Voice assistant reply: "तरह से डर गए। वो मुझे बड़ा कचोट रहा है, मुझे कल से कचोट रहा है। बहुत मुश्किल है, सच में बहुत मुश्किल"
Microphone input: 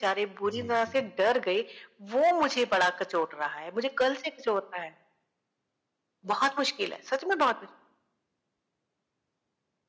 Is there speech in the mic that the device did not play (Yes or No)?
Yes